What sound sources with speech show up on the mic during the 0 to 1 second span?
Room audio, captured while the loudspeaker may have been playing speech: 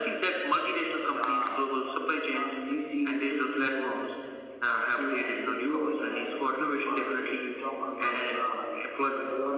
echo only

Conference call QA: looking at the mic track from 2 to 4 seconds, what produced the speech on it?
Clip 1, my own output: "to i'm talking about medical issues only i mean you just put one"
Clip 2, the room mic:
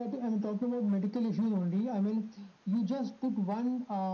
echo only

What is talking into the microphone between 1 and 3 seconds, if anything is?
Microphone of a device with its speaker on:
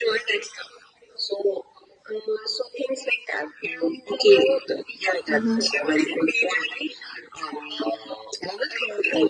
echo only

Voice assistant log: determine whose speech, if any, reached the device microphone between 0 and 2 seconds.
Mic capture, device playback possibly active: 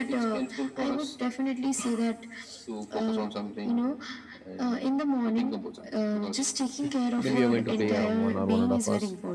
echo only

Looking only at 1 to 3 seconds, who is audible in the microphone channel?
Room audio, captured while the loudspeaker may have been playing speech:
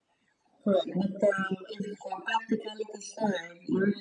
echo only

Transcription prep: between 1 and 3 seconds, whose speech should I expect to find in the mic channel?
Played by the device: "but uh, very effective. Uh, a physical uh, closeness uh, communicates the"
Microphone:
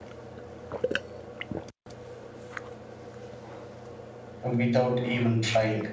neither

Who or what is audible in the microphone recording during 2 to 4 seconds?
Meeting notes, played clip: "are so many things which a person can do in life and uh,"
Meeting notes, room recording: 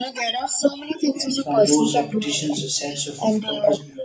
both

